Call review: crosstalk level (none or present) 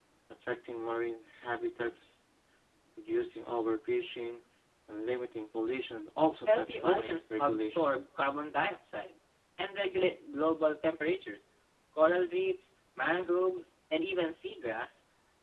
present